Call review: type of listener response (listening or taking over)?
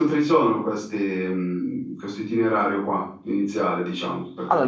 taking over